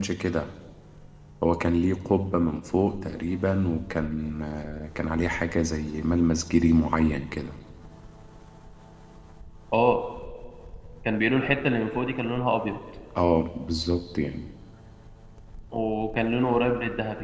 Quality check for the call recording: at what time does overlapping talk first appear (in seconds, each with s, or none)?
none